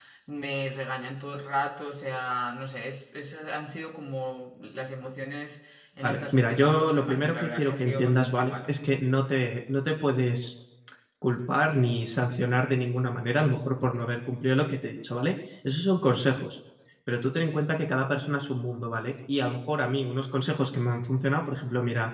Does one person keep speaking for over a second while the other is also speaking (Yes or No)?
Yes